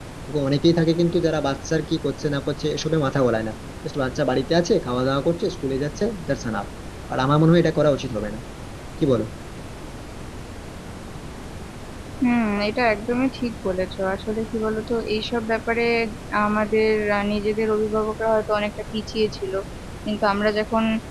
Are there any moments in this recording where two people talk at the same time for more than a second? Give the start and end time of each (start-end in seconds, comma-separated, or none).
none